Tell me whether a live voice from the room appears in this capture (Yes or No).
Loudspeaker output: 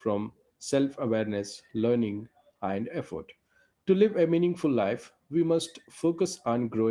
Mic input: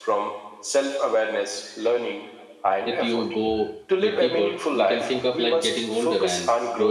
Yes